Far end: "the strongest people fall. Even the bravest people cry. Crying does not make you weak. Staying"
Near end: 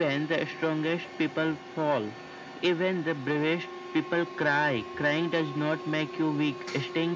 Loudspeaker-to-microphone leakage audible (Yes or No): Yes